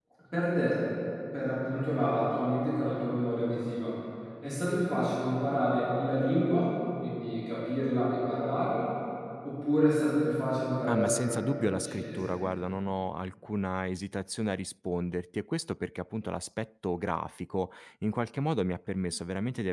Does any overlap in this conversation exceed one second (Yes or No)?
Yes